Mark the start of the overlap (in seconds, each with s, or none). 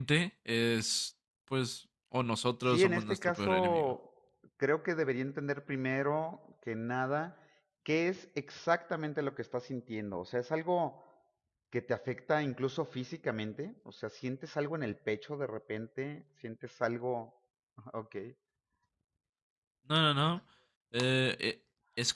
2.7 s